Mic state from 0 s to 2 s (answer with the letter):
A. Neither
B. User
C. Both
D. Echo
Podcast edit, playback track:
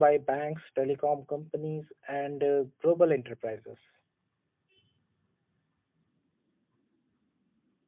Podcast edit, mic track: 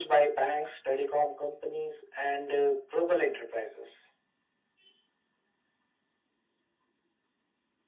D